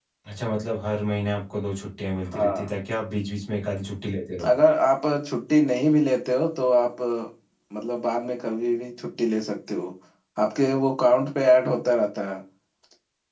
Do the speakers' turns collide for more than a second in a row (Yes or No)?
No